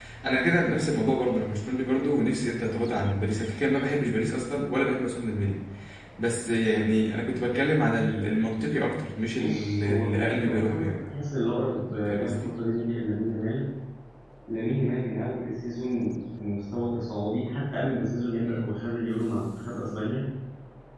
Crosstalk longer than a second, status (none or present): present